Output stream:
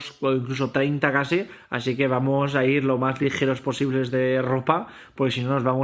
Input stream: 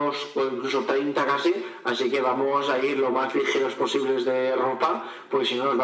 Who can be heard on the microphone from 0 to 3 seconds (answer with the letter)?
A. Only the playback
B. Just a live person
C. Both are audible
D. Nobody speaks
A